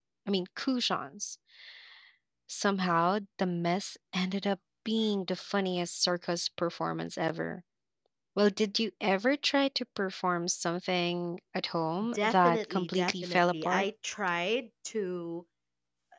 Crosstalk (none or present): present